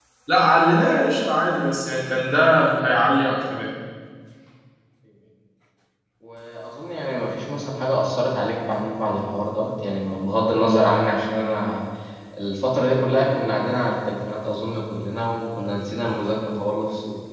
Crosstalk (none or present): none